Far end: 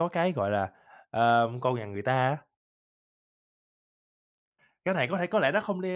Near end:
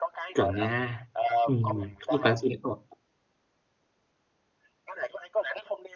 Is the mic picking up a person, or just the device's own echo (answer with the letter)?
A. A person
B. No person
A